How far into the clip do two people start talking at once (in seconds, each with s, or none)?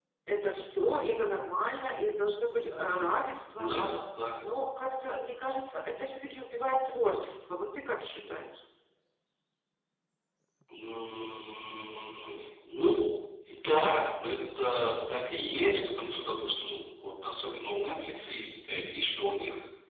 none